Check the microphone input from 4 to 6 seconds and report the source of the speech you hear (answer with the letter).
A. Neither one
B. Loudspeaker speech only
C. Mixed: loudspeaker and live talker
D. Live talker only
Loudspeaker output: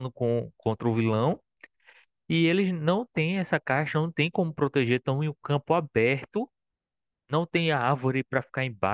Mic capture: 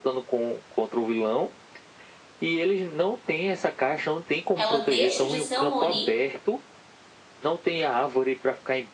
C